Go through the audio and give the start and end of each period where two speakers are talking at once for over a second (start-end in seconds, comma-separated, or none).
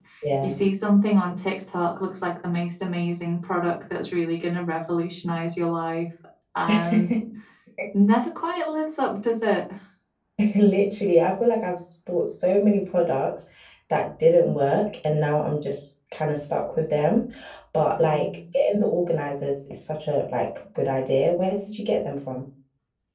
none